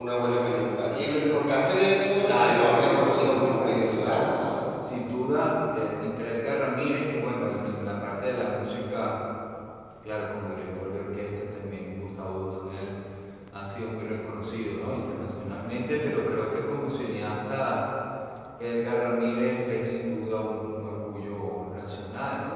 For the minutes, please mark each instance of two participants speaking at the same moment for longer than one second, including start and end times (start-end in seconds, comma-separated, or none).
2.2-4.3